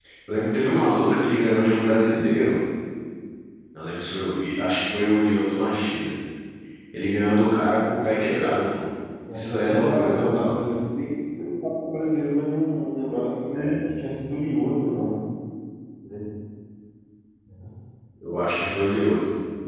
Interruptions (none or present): present